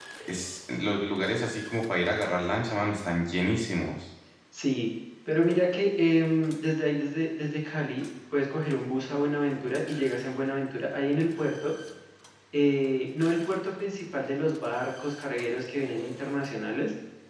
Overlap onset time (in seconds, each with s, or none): none